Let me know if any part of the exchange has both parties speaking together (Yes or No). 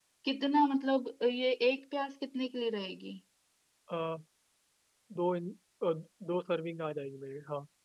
No